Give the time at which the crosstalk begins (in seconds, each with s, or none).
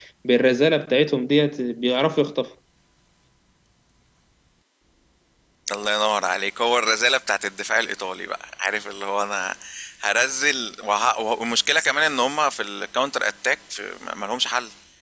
none